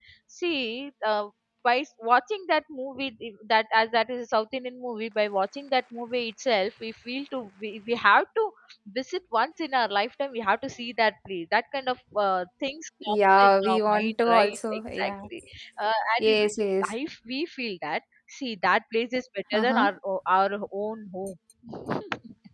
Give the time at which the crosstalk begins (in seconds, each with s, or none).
13.0 s